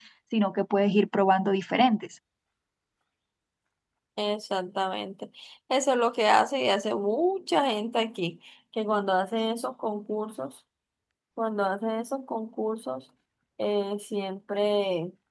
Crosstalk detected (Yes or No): No